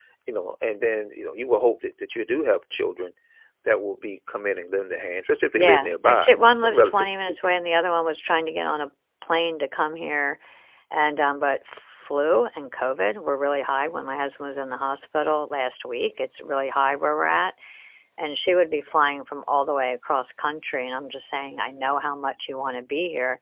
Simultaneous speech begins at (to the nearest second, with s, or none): 6 s